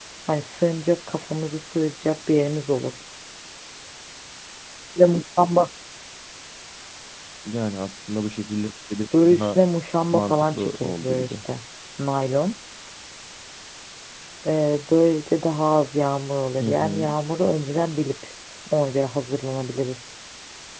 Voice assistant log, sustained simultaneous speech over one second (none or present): present